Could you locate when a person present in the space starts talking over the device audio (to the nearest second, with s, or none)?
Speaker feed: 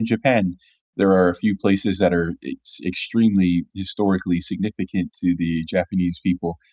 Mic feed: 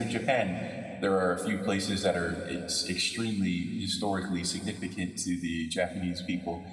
none